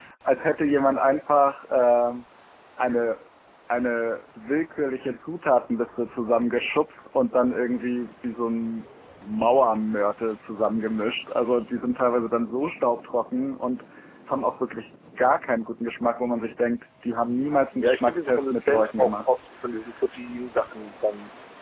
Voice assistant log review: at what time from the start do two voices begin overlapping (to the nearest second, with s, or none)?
18 s